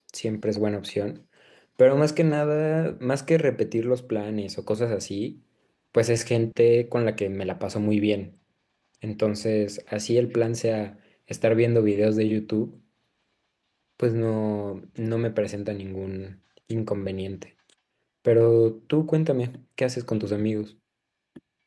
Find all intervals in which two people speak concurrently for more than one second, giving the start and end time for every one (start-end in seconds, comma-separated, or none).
none